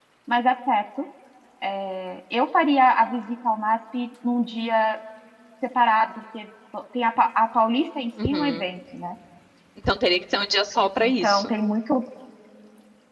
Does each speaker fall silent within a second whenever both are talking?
Yes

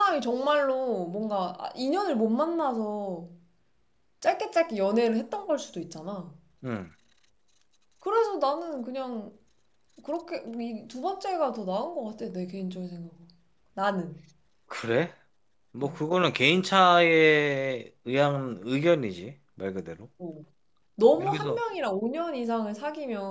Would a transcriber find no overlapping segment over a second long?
Yes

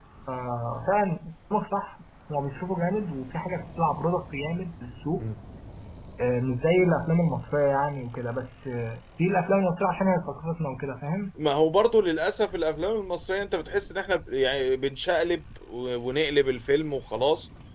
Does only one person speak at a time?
Yes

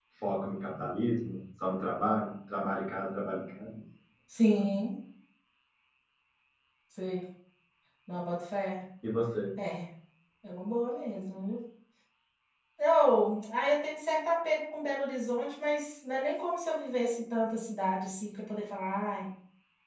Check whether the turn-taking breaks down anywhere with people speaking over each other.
No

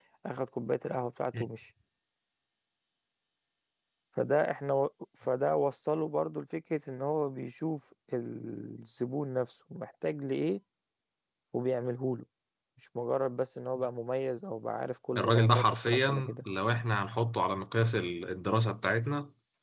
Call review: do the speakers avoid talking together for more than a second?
No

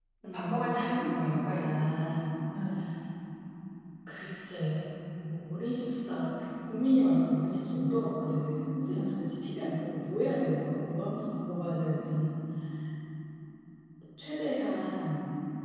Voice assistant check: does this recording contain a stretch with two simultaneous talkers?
Yes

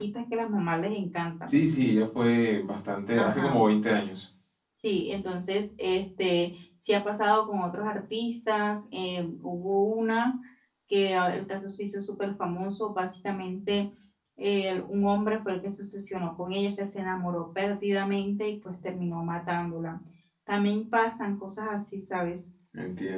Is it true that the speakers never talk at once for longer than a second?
Yes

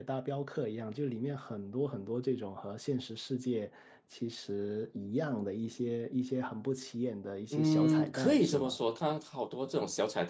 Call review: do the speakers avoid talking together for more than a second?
No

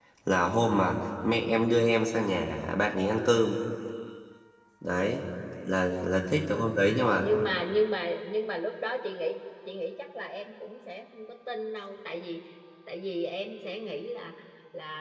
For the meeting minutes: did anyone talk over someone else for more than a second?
No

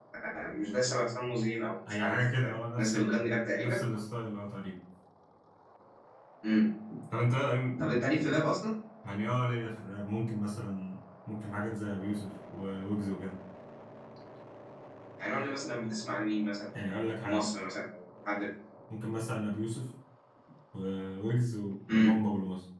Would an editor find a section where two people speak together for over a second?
Yes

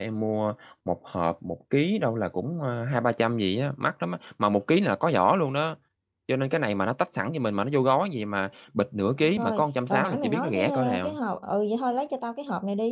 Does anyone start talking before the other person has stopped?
Yes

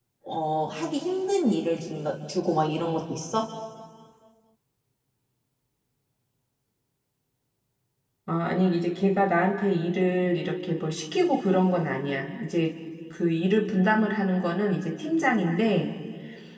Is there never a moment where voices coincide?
Yes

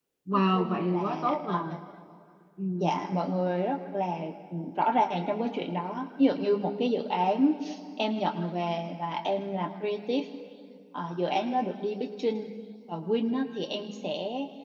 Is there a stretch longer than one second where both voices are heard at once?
Yes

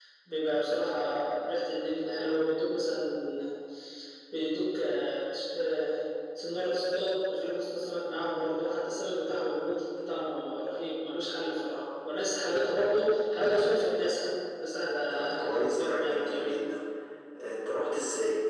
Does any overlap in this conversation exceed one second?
Yes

